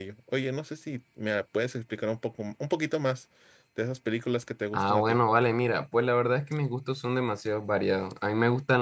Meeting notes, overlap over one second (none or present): none